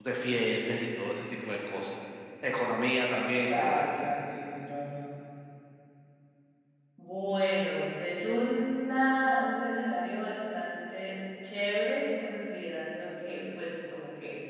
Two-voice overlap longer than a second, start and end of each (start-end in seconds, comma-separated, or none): none